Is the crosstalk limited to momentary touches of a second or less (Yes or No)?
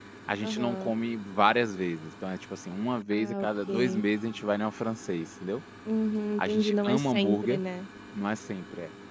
No